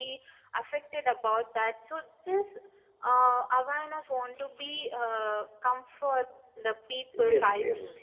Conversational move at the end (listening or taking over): taking over